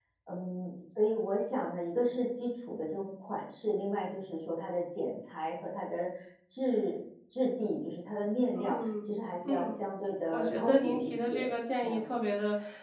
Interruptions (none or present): present